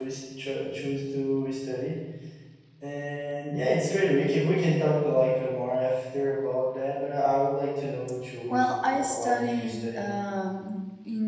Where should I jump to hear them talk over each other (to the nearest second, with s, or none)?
8 s